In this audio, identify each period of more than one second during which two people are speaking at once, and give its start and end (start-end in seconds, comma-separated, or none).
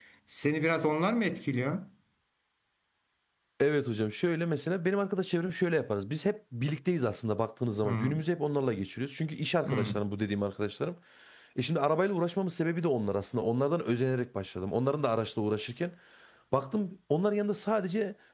none